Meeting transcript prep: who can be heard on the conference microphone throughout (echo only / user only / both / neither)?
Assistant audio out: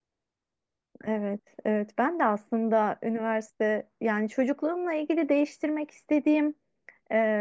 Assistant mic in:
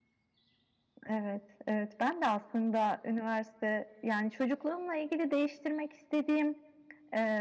echo only